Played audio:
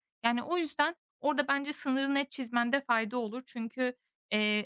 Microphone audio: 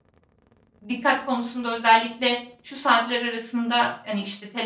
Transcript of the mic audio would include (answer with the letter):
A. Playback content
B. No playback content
B